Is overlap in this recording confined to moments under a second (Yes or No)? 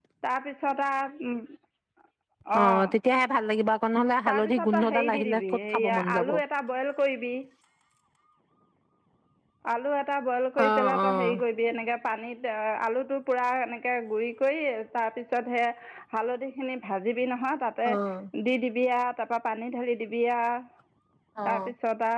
No